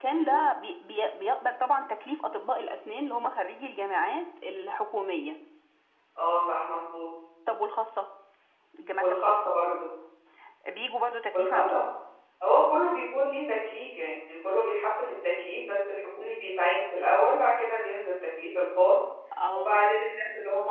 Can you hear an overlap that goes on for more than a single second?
No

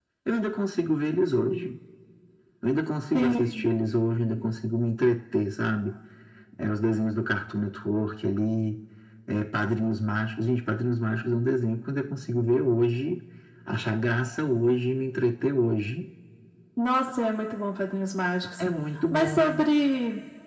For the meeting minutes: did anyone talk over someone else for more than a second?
No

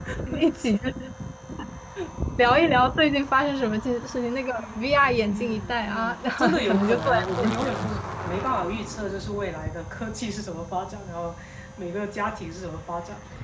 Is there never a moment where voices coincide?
No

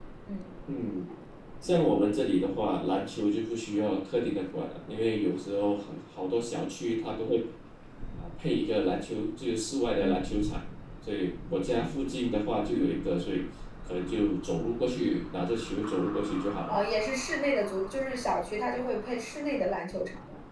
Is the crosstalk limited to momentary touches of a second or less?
Yes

